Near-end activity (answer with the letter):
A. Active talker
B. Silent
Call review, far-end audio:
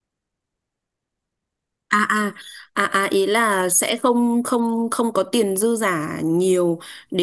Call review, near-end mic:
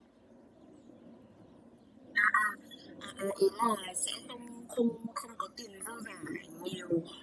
B